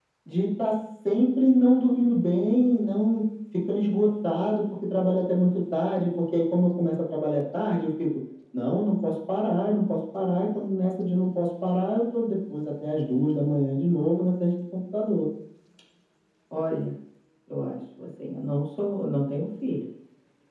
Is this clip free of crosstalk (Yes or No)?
Yes